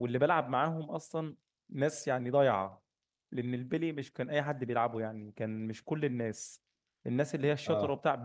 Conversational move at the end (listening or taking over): listening